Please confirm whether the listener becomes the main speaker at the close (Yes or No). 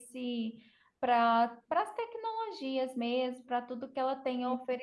No